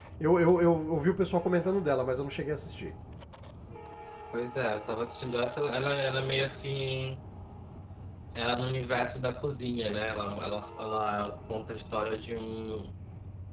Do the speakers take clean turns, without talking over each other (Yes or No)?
Yes